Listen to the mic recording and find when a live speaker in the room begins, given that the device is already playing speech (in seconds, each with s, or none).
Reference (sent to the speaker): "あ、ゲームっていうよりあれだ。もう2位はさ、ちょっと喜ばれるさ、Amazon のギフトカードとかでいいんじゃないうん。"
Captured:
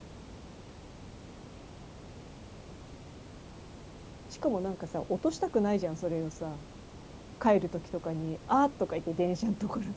4.3 s